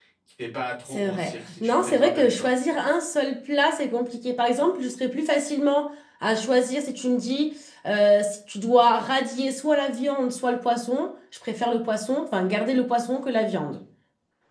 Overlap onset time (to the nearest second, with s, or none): 1 s